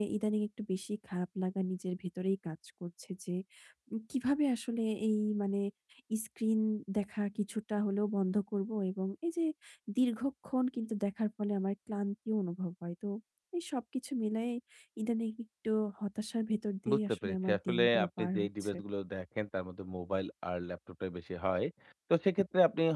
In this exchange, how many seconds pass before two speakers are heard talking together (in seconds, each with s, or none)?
16.9 s